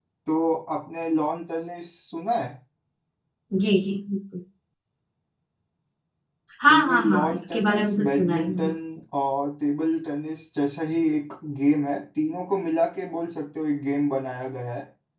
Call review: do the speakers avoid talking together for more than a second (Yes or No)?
No